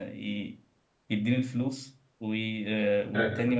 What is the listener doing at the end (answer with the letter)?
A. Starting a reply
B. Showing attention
B